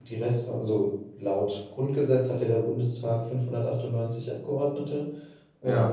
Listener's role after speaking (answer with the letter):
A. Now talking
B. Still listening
B